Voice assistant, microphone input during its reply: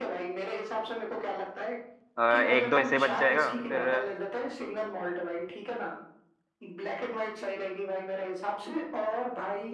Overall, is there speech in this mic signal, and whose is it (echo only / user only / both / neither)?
both